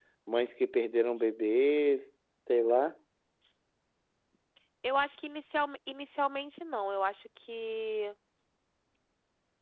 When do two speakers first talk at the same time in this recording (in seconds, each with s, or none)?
none